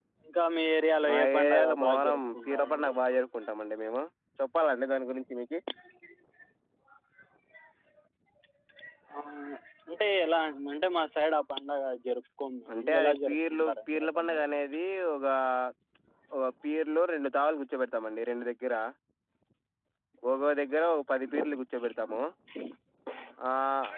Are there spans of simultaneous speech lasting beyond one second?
Yes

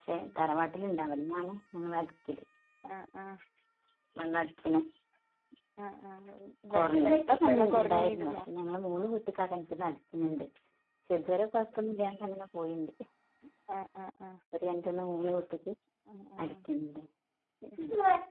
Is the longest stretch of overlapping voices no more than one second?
No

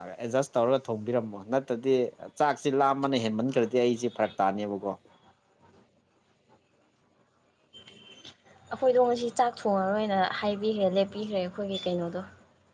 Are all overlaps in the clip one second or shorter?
Yes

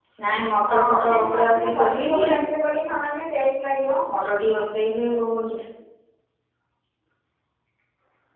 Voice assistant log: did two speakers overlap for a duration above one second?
Yes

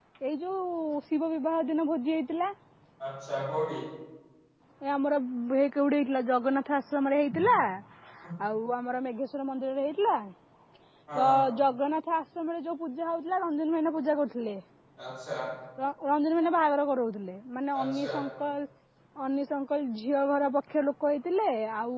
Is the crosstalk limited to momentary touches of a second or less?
Yes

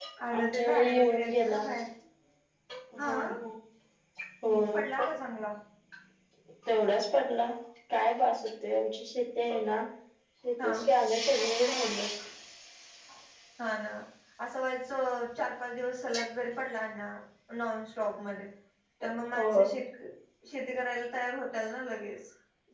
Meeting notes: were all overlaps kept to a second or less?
No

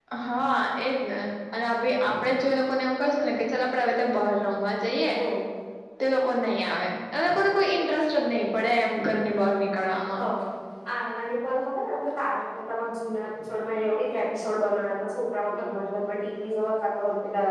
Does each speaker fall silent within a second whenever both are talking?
Yes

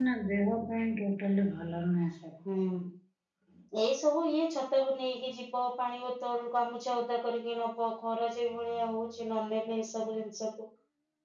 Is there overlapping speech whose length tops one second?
No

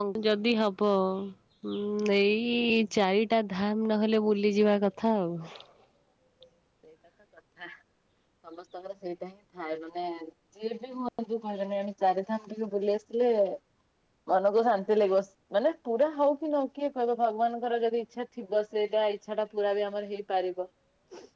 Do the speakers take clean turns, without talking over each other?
Yes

